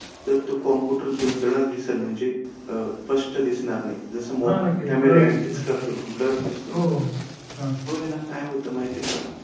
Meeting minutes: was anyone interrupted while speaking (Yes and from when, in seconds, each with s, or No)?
Yes, from 4.4 s